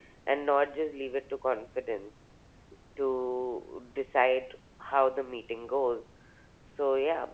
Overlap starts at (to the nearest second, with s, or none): none